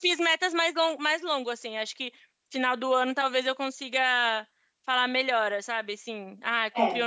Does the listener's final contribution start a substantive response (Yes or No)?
No